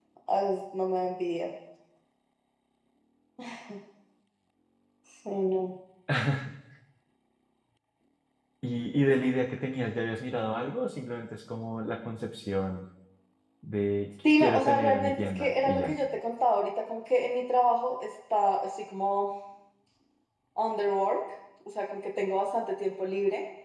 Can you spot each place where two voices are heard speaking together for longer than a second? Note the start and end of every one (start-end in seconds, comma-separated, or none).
14.4-15.9